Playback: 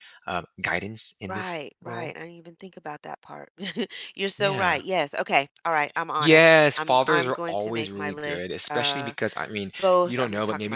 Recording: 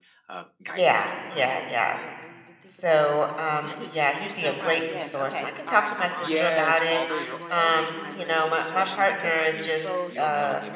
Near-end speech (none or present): present